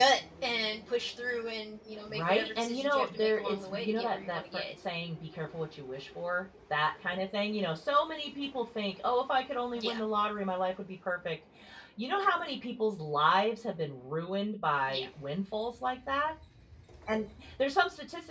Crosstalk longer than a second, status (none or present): present